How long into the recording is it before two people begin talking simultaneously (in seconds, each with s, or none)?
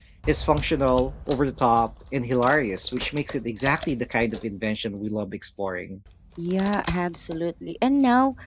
none